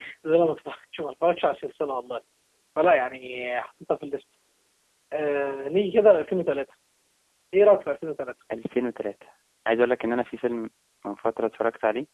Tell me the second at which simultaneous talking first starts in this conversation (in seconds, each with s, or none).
none